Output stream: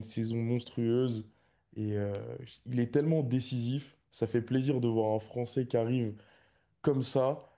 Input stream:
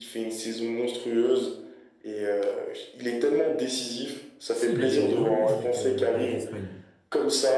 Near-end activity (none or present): present